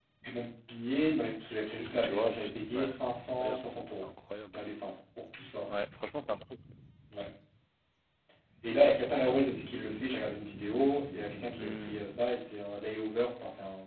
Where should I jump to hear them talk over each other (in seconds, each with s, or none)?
1.9 s